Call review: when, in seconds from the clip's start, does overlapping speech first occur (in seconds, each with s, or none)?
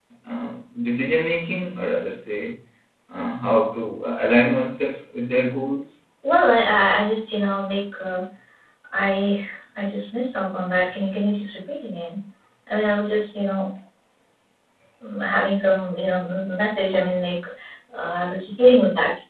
none